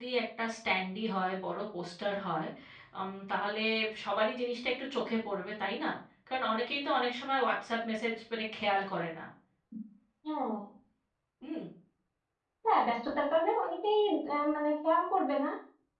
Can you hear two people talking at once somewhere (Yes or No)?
No